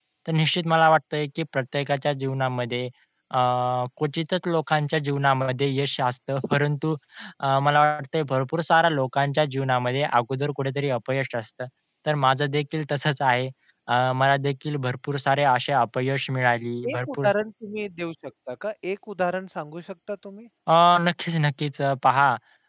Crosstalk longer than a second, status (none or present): none